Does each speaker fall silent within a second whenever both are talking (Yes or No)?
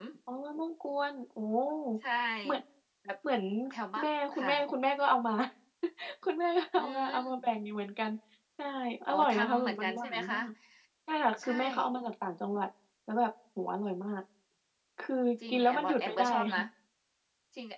No